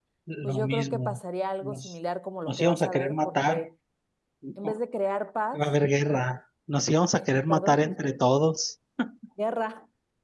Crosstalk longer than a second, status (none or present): present